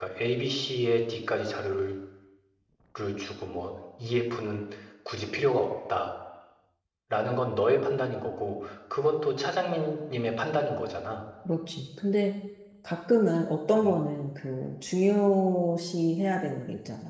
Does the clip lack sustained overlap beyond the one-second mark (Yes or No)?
Yes